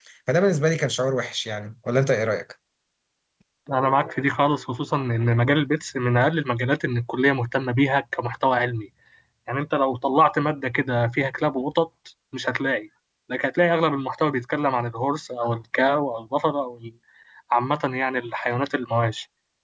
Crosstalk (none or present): none